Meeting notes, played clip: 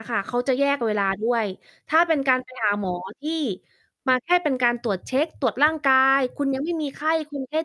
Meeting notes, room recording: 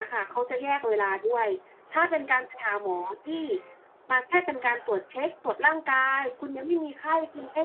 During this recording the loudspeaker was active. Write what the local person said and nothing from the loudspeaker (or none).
none